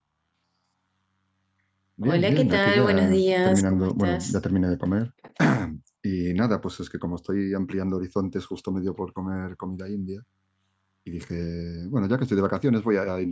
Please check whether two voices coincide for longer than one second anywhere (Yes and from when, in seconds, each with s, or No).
Yes, from 2.0 s